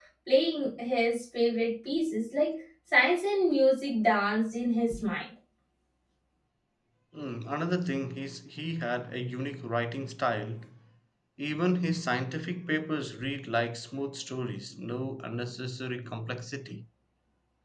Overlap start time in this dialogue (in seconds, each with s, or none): none